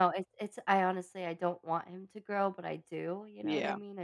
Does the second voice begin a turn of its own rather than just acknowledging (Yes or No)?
Yes